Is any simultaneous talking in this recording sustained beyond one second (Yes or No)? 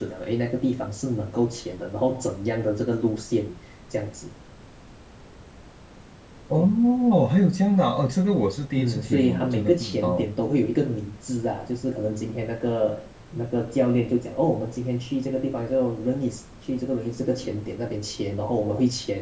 Yes